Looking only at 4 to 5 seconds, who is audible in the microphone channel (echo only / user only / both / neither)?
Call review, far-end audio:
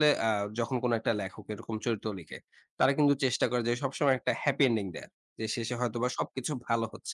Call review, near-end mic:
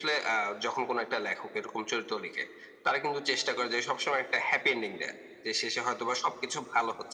echo only